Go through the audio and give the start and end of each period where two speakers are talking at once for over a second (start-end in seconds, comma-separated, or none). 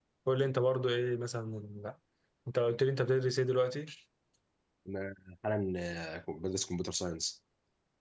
none